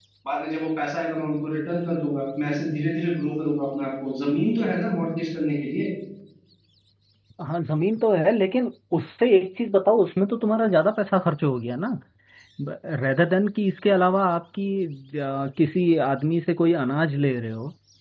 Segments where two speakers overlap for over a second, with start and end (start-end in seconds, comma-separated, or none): none